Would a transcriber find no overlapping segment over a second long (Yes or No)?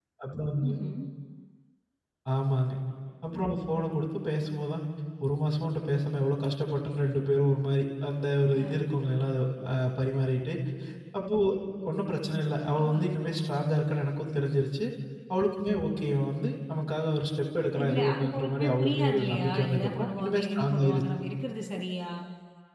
No